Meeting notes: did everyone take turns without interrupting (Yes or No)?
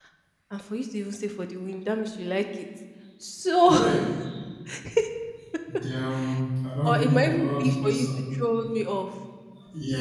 No